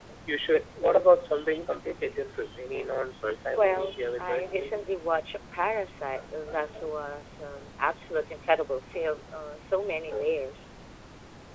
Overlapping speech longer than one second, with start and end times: 3.6-4.8

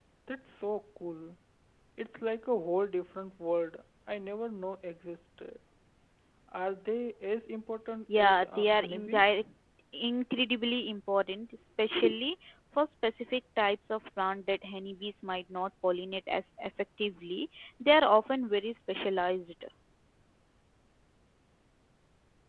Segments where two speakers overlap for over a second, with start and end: 8.2-9.4

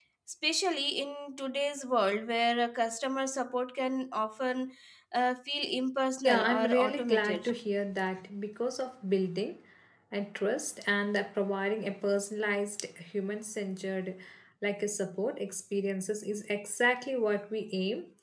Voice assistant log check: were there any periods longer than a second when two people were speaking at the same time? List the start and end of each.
6.2-7.5

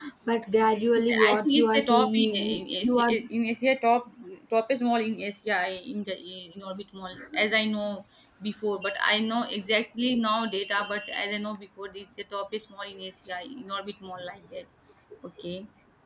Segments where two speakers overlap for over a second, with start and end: 1.3-3.1

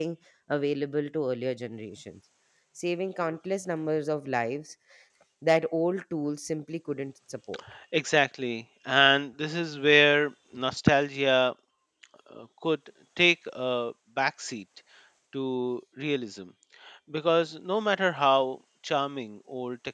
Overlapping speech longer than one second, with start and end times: none

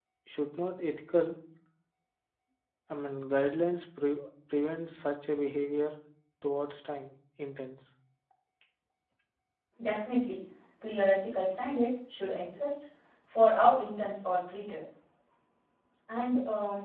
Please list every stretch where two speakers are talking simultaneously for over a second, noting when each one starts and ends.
none

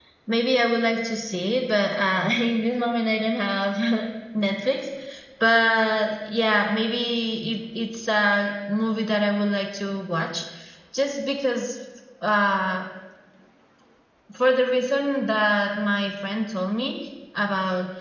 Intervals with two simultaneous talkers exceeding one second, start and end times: none

